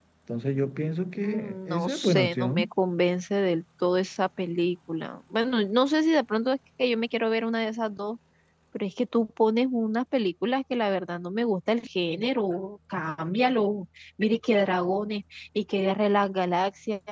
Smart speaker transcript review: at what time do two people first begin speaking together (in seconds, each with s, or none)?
1.2 s